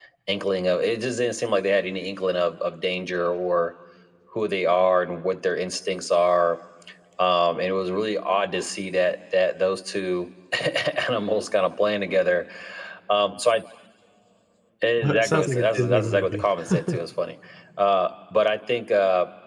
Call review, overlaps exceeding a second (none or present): present